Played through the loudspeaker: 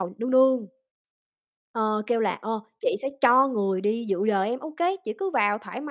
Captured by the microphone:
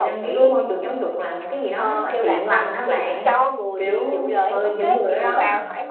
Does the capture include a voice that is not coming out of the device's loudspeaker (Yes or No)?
Yes